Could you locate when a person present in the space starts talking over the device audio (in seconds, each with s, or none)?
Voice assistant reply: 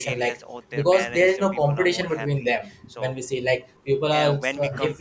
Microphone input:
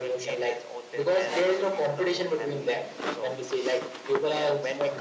none